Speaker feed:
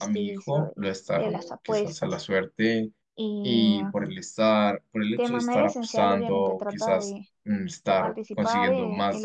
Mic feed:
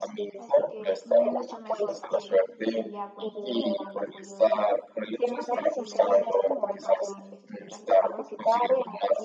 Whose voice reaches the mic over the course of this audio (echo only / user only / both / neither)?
both